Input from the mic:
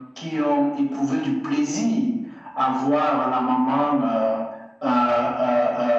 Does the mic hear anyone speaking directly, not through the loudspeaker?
No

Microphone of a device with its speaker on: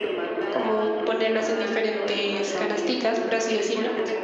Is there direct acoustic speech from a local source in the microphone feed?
Yes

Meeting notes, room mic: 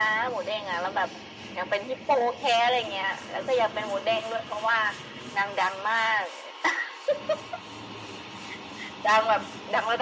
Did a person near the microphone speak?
No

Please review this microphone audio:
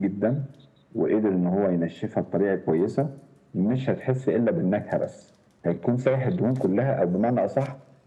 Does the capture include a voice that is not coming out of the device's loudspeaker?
No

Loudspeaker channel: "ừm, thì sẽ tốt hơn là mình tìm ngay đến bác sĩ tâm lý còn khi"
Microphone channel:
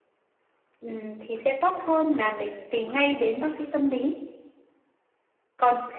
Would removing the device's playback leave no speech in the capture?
Yes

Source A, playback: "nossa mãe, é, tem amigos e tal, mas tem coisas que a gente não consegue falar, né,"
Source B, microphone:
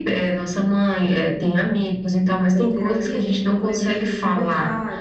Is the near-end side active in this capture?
Yes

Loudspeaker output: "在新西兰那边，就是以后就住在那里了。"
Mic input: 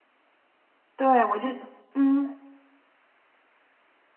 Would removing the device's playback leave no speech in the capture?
No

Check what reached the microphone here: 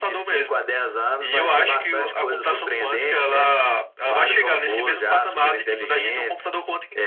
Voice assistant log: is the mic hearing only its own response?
Yes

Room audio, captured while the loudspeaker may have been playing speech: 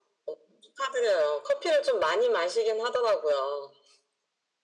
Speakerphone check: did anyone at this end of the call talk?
No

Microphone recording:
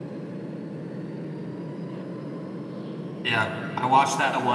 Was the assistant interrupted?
Yes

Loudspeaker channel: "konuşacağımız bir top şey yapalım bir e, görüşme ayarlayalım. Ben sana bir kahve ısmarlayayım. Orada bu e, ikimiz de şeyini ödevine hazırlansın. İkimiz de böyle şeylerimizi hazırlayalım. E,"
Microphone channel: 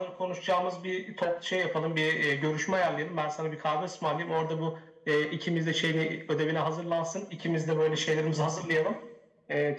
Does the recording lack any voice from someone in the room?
Yes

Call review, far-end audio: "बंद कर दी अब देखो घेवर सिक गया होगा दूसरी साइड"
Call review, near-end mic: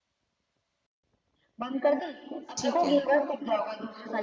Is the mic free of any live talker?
No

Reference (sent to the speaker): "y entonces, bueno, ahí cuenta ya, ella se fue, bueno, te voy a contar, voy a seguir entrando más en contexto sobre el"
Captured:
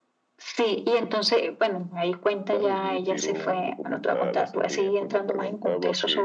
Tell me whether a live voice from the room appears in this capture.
Yes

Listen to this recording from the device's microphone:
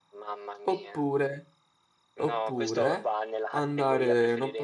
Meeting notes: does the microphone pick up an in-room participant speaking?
Yes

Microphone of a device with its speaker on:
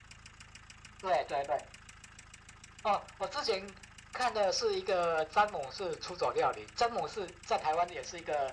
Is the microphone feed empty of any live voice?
Yes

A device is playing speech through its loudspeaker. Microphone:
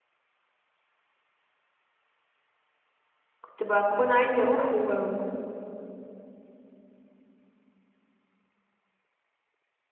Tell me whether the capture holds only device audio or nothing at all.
No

